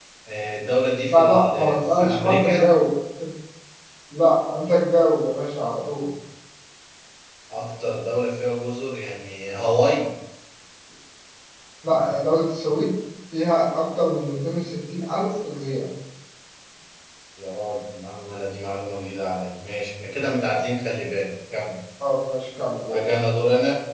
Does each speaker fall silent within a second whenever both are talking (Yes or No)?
No